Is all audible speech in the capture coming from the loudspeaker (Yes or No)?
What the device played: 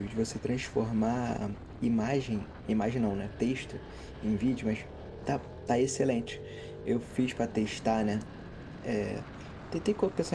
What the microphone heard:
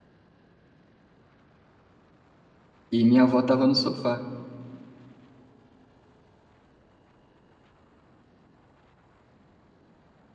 No